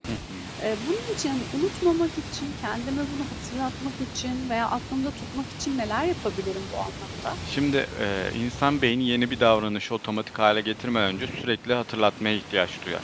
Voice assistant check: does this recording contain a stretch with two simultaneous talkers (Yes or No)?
No